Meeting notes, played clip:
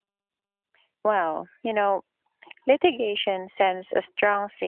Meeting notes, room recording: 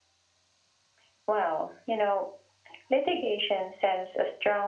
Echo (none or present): present